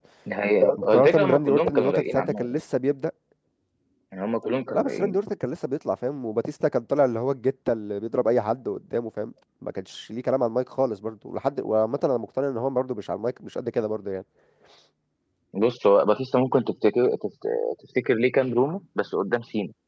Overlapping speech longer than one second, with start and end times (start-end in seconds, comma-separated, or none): 0.7-2.6